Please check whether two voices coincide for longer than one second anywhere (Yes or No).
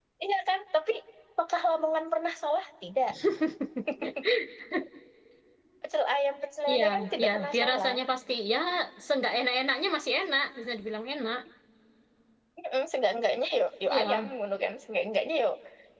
Yes